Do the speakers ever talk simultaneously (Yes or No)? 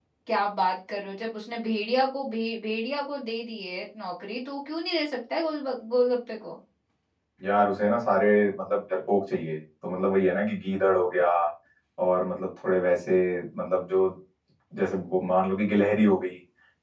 No